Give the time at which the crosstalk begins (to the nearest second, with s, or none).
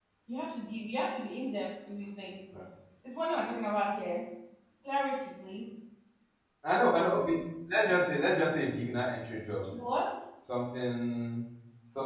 none